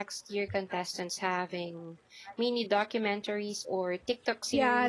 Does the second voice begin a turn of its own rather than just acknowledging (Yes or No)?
Yes